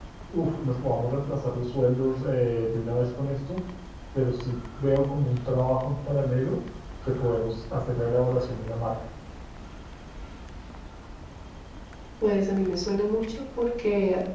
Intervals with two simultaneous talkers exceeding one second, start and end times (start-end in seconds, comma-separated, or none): none